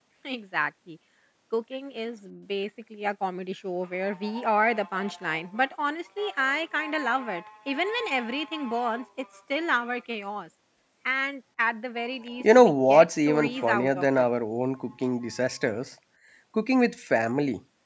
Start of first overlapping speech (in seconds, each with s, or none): 12.4 s